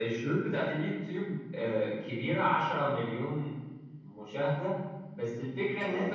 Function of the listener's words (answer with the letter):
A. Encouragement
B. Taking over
A